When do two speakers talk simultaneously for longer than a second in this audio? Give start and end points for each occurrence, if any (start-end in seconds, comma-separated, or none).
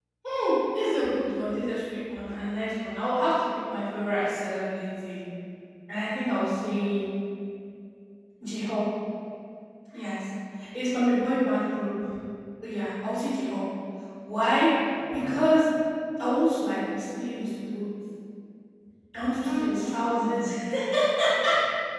19.3-20.5